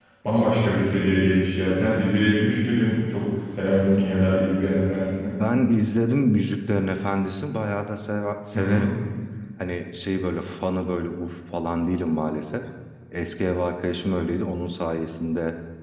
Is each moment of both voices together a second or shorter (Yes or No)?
Yes